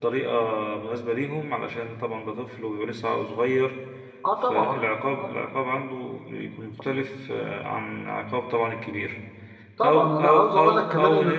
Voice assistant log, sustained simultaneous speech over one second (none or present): present